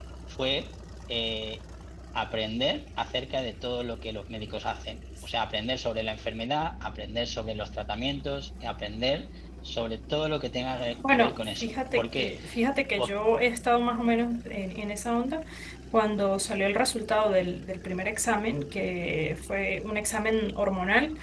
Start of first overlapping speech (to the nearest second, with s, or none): 11 s